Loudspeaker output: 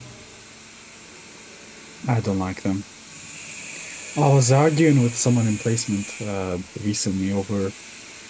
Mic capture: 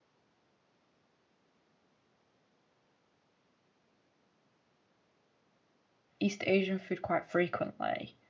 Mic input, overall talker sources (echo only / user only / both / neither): user only